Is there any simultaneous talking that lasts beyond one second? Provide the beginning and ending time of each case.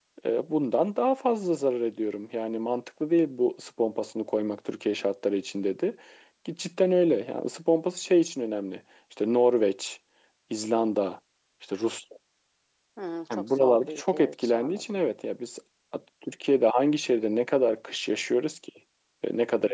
13.3-15.0

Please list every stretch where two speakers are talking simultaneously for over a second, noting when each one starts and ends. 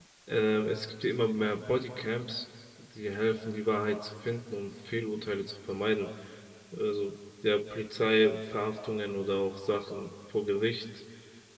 none

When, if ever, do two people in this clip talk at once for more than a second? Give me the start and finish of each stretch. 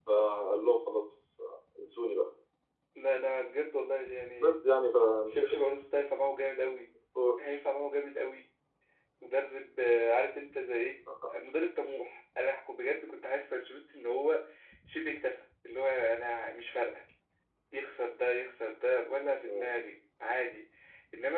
none

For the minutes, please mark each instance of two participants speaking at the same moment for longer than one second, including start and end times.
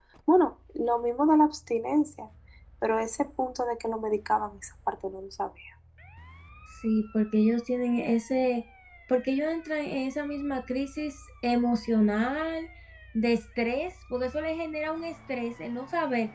none

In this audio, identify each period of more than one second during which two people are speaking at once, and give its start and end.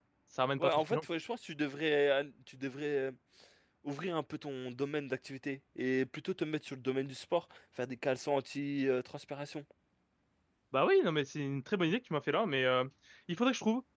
none

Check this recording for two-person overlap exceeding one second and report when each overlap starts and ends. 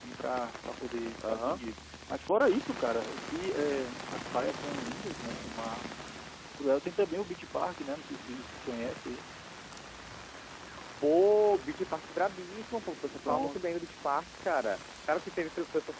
none

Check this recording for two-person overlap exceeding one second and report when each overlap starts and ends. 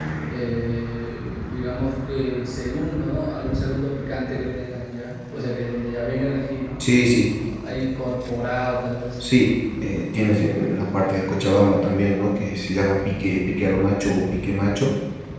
none

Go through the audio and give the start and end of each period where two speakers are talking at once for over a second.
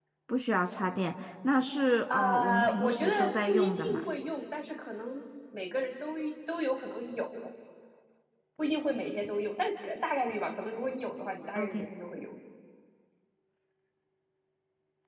2.1-4.0

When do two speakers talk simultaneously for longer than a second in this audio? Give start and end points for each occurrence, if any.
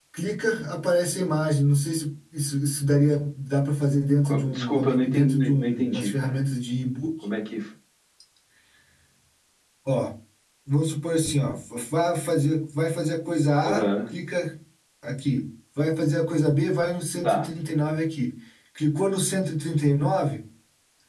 4.2-6.4

